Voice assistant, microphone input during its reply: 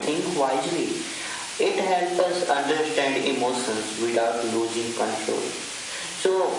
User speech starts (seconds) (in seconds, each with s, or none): none